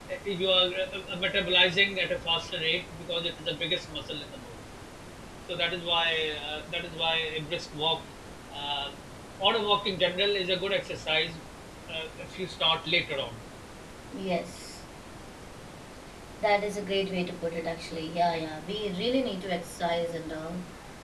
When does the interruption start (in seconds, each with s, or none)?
none